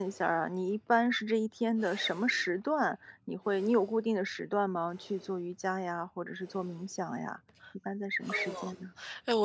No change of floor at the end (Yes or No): No